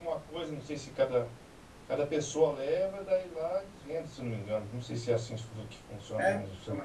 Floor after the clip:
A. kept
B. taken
B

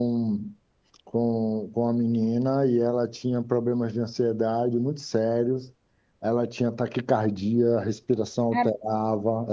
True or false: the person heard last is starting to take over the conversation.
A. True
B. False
B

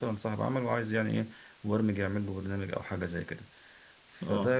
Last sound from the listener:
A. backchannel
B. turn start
A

